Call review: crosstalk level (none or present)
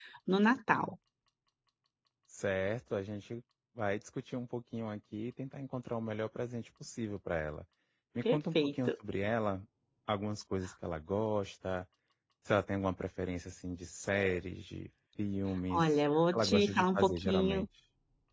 present